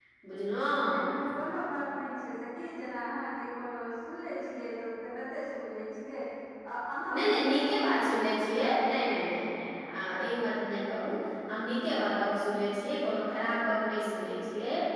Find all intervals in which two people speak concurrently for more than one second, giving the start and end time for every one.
7.1-9.1

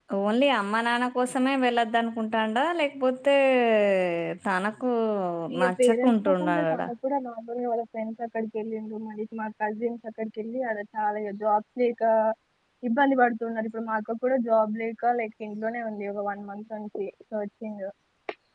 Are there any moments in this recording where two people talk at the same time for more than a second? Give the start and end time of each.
5.6-6.8

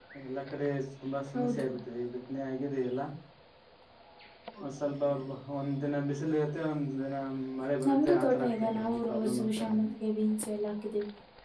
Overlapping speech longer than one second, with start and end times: 7.9-9.8

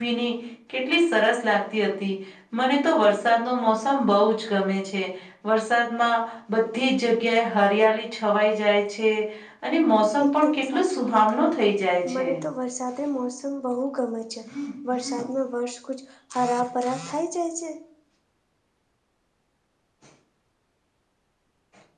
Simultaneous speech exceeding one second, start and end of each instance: 10.2-11.5

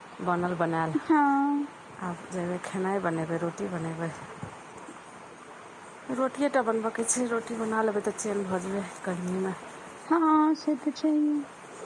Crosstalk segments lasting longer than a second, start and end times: none

